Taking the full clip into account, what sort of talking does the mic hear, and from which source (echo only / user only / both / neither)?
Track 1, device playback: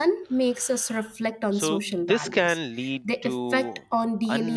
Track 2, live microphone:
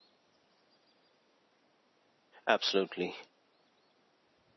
user only